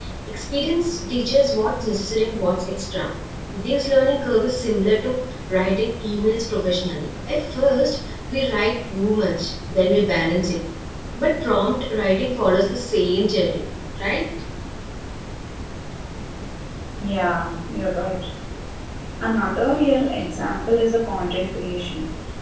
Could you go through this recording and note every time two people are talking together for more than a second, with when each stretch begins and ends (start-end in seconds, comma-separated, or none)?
none